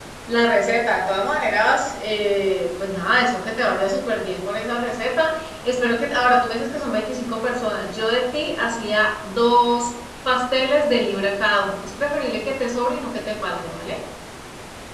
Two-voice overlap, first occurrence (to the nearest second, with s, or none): none